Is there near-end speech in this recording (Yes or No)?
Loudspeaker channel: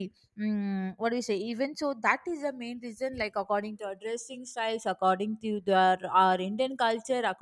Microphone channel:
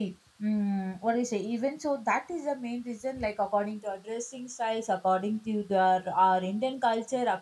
No